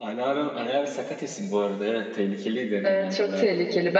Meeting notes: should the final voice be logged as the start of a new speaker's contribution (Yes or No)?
Yes